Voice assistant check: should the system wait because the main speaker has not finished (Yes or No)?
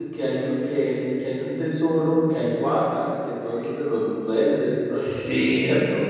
No